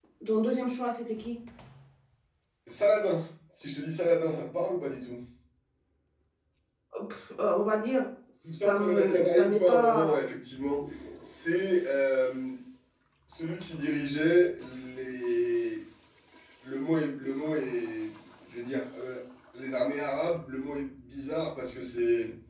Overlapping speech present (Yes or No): Yes